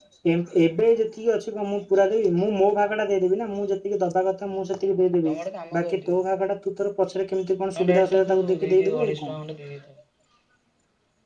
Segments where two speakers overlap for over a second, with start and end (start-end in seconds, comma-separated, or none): 7.8-9.3